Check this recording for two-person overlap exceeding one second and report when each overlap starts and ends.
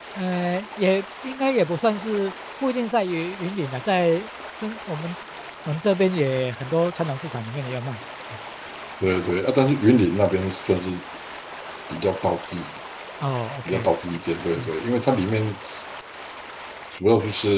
none

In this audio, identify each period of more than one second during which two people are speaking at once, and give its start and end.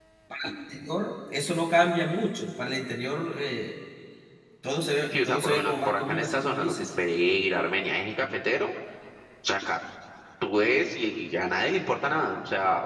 5.1-6.9

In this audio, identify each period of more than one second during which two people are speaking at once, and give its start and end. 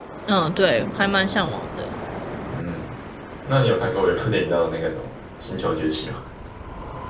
none

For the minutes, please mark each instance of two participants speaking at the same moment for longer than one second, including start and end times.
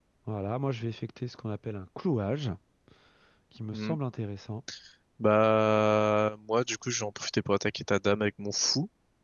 none

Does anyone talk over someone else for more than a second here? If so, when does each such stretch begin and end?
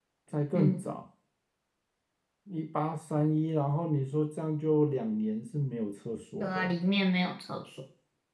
none

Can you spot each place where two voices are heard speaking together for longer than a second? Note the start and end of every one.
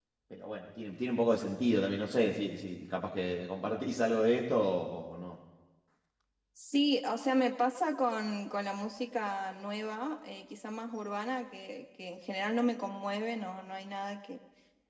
none

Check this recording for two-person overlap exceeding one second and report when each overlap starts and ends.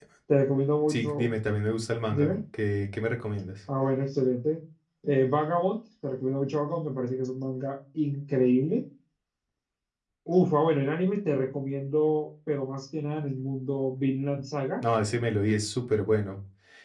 none

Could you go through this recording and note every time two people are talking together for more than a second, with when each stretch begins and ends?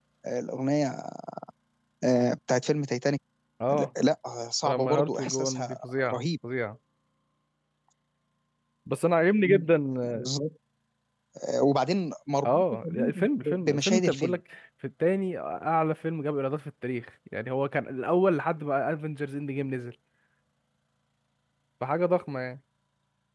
4.7-6.2, 12.4-14.4

